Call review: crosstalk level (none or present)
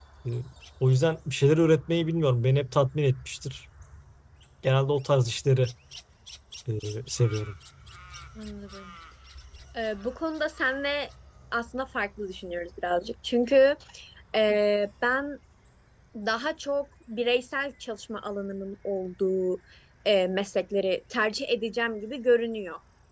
none